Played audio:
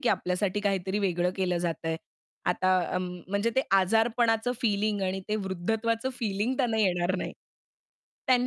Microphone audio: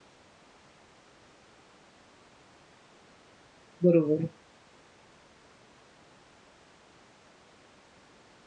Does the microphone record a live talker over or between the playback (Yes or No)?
Yes